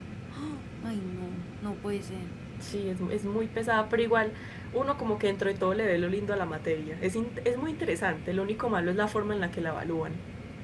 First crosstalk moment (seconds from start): none

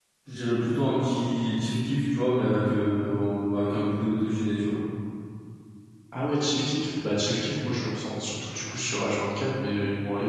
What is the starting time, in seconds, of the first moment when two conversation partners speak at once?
none

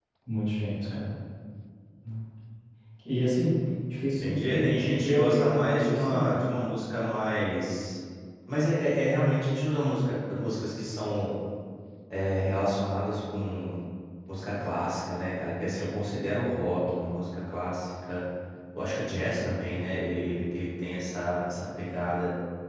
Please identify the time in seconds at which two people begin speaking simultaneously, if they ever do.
4.2 s

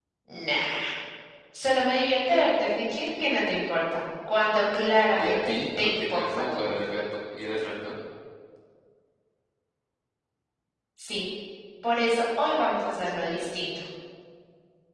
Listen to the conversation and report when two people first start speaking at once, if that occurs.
5.2 s

